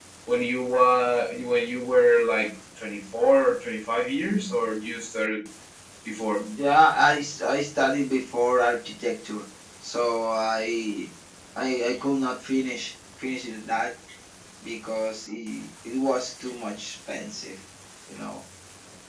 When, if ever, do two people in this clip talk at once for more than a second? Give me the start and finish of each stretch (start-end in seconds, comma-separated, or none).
none